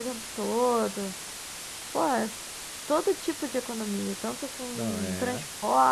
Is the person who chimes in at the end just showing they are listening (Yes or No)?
Yes